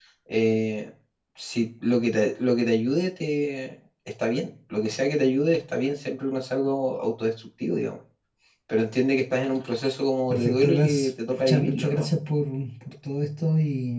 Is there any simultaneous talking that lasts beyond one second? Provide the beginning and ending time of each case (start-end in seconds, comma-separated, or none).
10.3-12.1